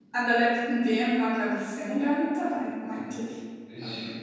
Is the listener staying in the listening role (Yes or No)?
No